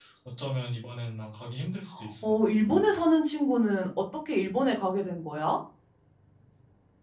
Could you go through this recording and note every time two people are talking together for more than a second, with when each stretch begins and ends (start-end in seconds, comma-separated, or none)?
none